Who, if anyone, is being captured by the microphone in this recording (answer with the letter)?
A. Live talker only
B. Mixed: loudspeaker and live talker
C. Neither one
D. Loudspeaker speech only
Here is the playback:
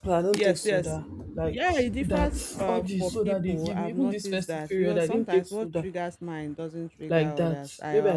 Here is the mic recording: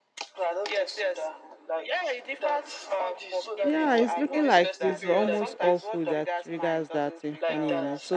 B